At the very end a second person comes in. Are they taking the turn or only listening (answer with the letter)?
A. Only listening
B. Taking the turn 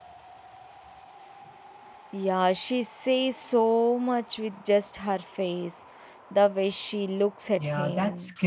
B